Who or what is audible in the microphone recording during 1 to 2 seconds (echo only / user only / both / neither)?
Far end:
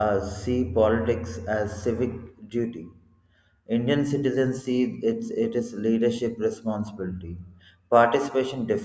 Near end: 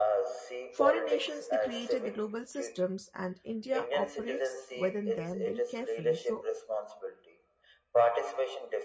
both